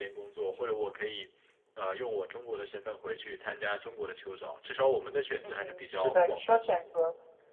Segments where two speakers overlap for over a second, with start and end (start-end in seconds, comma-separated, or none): 5.4-6.7